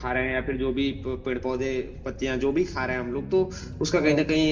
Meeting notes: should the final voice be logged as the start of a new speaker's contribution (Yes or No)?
No